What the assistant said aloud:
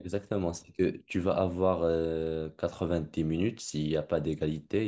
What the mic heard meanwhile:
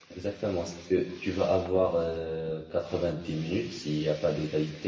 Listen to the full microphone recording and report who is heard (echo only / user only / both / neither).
echo only